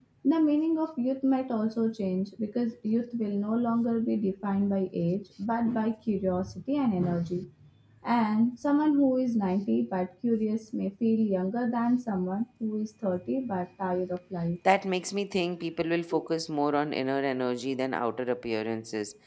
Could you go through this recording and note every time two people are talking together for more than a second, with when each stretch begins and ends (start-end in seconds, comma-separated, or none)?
none